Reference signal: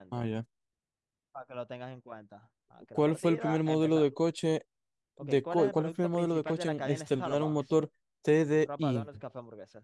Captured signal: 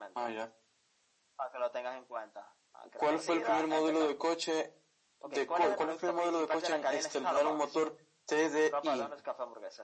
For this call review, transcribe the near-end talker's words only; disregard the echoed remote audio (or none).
none